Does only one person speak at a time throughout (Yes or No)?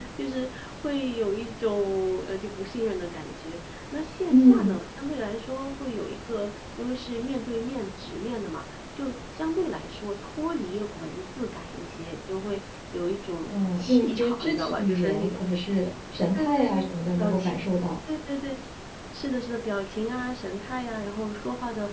No